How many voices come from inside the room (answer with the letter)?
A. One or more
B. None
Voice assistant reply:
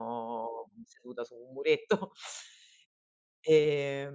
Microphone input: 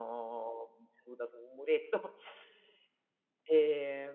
B